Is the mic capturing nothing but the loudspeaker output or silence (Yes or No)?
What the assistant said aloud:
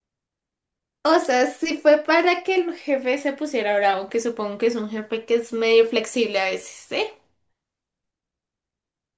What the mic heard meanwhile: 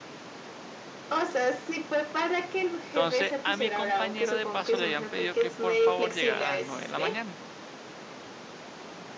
No